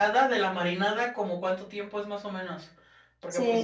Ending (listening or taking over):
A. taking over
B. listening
A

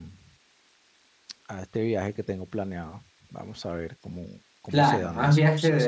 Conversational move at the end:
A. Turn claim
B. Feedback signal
A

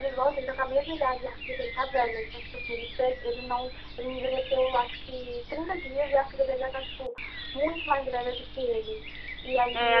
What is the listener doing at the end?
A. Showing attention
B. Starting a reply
B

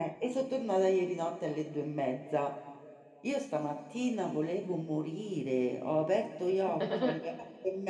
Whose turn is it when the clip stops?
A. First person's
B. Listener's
A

